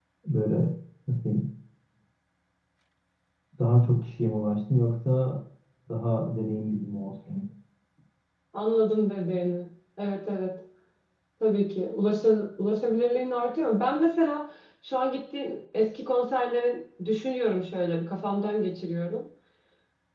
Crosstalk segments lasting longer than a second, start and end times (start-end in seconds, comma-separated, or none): none